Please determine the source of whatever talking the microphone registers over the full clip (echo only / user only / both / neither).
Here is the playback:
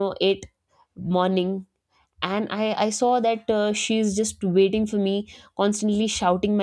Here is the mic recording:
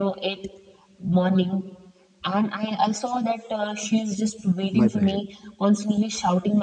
both